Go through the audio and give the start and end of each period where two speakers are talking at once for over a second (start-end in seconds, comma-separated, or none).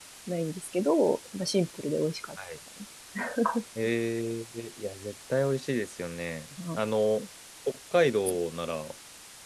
none